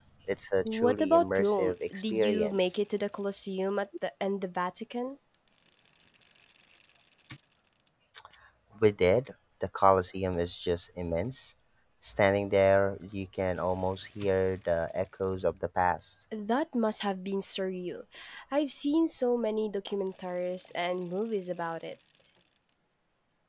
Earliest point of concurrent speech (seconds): 0.6 s

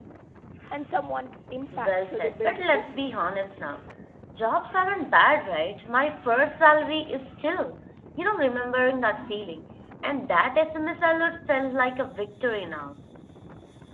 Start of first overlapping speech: 1.7 s

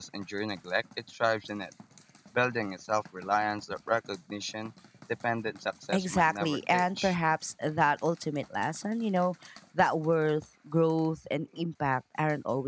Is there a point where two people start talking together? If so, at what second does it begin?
5.9 s

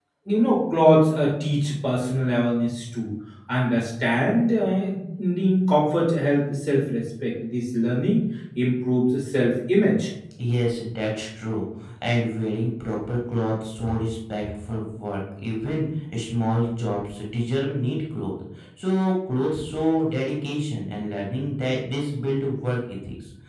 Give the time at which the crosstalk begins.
none

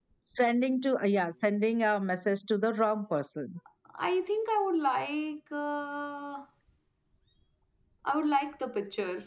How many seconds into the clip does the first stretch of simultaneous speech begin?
none

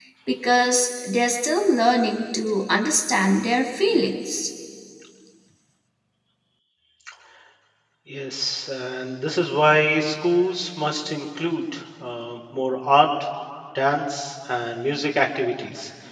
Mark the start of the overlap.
none

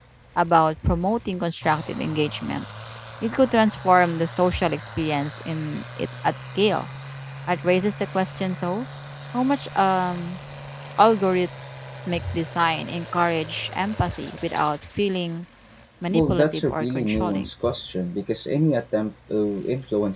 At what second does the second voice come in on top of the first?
16.1 s

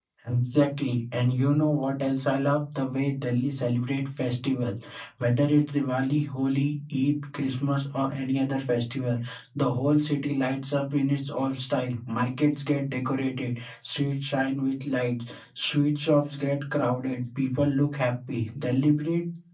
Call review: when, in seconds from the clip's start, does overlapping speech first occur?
none

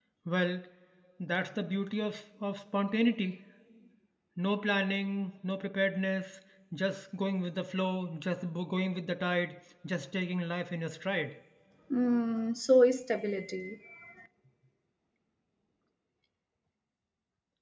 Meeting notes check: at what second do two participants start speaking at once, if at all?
none

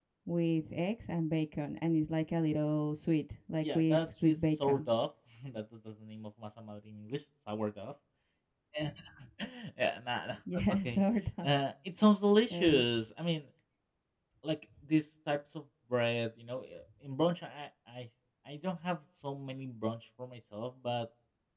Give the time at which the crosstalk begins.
3.6 s

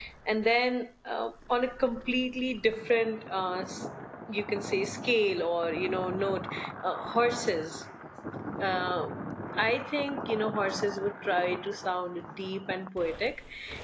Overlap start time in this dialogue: none

